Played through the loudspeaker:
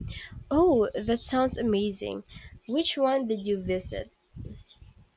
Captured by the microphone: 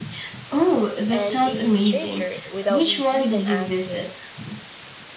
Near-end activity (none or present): present